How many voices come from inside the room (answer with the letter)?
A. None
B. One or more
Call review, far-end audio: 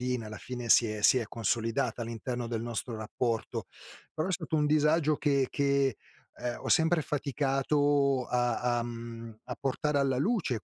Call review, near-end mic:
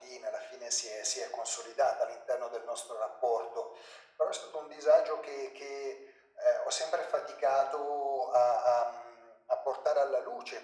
A